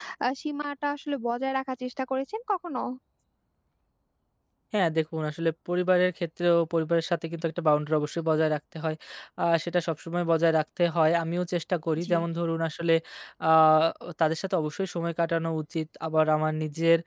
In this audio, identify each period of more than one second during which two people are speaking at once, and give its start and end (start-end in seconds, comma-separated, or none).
none